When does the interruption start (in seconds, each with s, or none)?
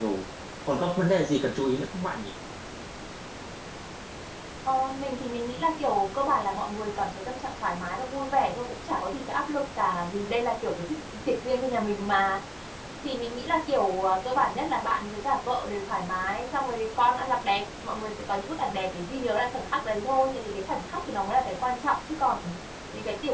none